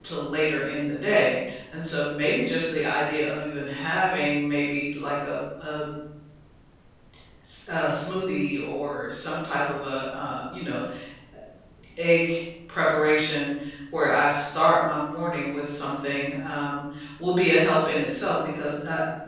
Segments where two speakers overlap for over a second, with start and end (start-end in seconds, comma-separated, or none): none